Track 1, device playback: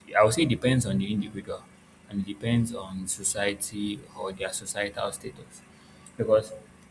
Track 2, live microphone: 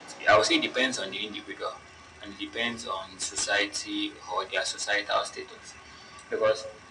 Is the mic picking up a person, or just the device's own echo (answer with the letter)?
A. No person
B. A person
A